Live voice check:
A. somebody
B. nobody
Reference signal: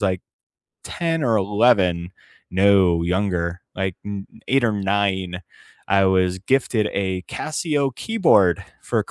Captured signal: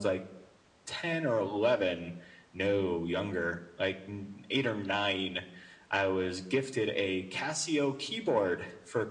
B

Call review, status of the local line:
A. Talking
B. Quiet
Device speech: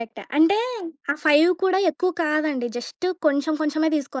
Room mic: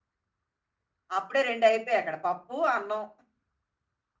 A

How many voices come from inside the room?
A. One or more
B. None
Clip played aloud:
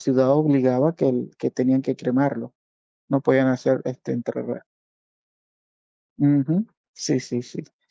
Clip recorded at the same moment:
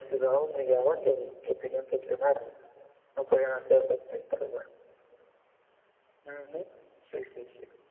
B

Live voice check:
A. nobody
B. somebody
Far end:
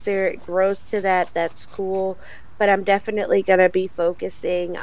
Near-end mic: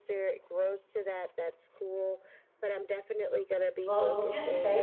B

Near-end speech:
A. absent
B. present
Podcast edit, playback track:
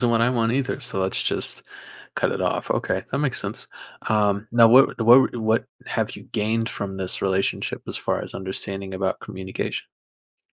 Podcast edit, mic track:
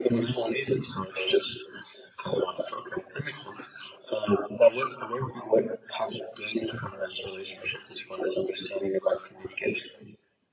A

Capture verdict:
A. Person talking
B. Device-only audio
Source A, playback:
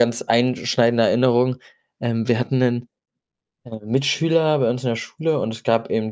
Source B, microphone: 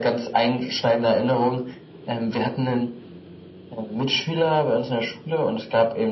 B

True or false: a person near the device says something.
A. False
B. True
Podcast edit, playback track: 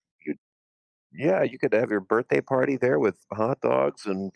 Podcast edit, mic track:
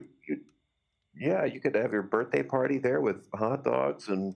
A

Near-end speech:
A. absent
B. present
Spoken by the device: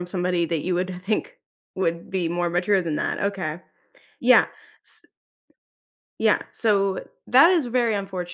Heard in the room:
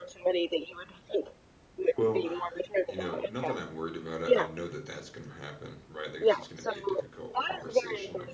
B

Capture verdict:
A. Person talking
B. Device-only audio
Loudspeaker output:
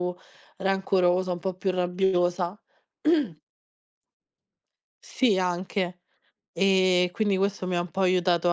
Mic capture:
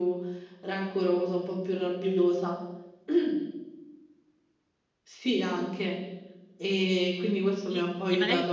A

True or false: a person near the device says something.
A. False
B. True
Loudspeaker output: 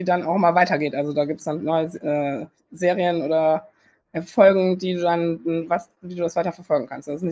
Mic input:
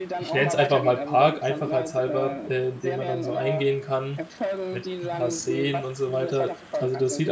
B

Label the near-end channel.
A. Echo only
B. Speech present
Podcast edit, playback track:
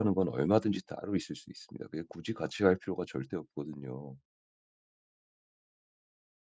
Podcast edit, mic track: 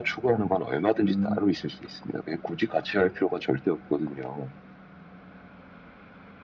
B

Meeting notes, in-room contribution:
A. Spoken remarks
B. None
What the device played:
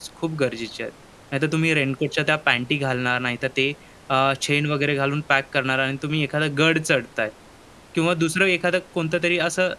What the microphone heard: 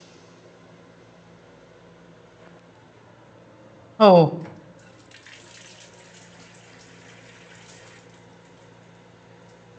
A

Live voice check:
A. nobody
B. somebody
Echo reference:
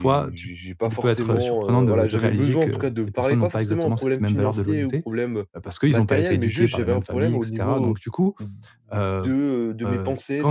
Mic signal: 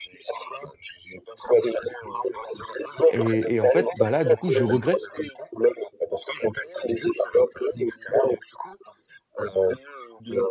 B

